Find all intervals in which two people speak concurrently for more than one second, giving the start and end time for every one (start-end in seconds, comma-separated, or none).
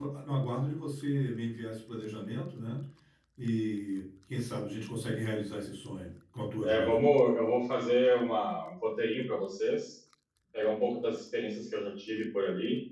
none